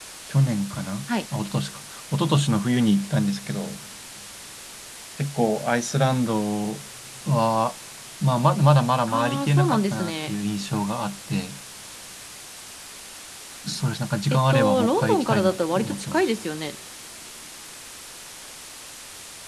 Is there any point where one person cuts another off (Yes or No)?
Yes